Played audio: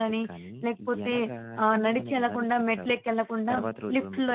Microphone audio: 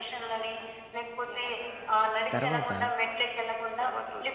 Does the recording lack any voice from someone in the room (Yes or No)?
No